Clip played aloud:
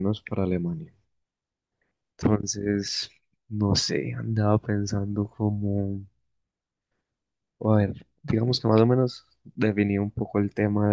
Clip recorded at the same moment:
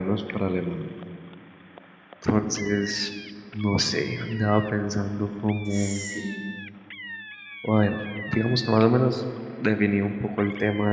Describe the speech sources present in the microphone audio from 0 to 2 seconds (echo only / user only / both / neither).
echo only